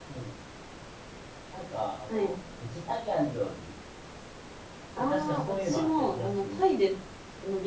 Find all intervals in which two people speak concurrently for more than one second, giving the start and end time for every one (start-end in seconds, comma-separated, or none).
5.0-6.6